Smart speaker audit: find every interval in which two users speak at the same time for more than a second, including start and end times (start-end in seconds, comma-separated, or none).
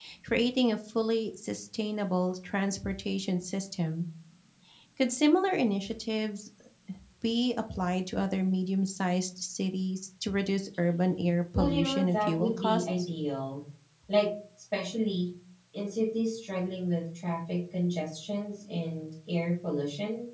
11.6-12.9